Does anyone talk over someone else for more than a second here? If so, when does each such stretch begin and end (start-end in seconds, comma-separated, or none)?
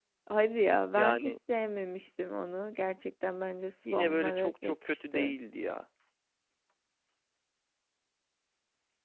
3.9-5.3